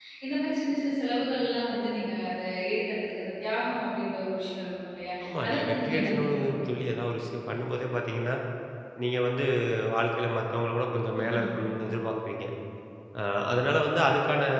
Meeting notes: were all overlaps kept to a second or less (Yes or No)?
No